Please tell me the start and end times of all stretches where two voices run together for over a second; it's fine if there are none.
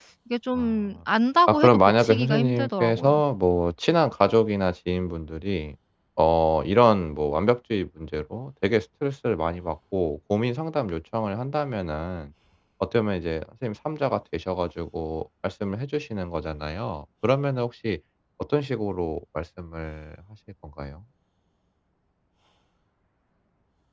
1.5-3.1

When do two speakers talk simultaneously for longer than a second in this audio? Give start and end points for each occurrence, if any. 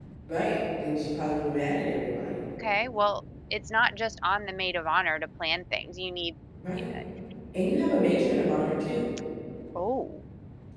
none

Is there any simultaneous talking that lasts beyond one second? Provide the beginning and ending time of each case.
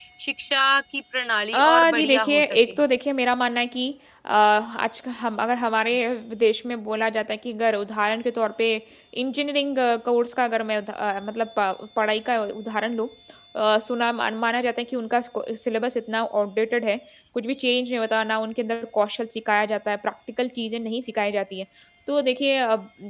1.5-2.8

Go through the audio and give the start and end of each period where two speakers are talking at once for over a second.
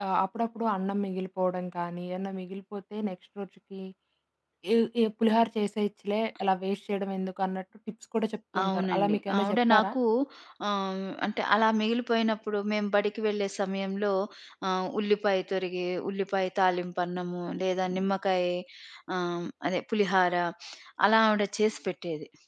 8.6-9.9

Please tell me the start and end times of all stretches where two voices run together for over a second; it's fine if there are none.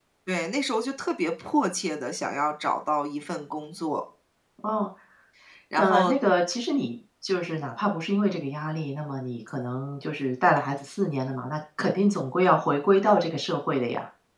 none

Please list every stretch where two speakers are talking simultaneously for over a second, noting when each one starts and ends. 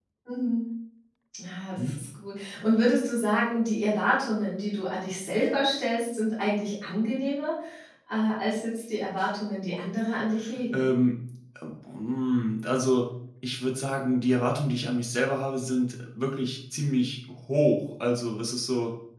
none

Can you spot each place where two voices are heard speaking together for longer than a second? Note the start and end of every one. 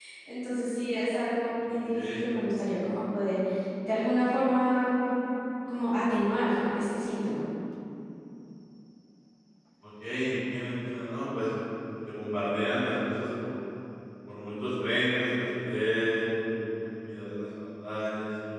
none

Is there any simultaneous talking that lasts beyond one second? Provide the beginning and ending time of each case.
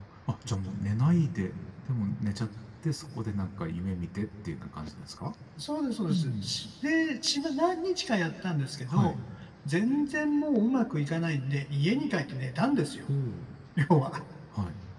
none

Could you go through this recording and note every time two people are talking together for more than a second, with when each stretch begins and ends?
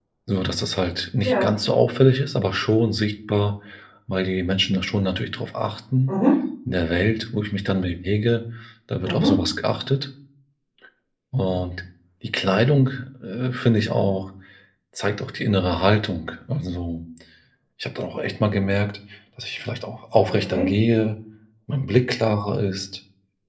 none

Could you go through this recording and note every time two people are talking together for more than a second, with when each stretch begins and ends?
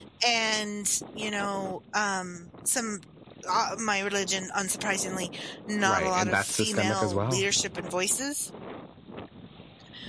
5.8-7.4

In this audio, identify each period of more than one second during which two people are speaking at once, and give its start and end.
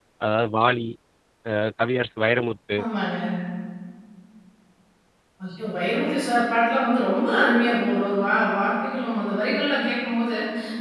none

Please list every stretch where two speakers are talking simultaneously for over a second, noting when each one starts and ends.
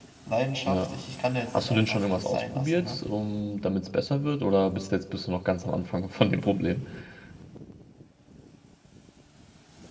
1.5-3.0

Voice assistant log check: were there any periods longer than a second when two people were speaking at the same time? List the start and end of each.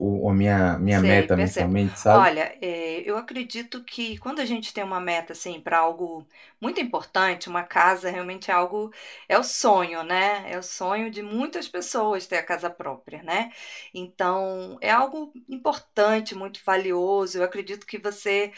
0.9-2.3

